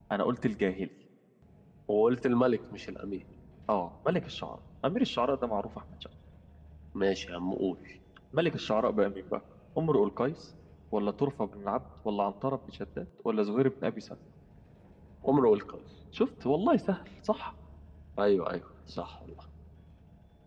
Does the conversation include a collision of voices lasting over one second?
No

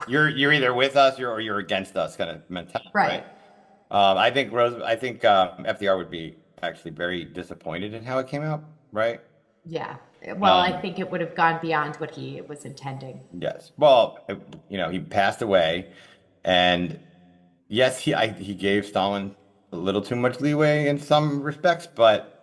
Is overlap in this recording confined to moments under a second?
Yes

